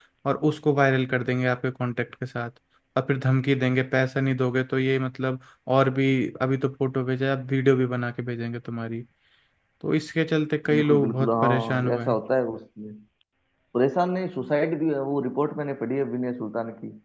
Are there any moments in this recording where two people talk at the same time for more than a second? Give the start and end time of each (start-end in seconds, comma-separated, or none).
10.7-12.2